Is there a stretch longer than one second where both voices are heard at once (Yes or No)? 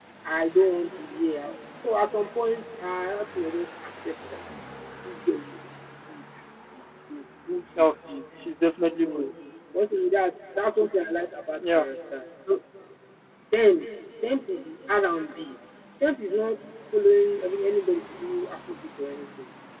No